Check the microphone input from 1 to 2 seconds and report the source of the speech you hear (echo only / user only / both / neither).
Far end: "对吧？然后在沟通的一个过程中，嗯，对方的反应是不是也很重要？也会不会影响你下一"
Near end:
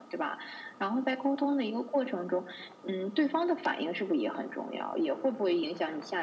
echo only